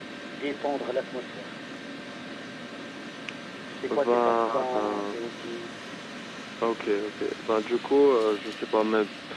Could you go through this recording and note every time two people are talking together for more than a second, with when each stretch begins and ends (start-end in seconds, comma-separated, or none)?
3.9-5.2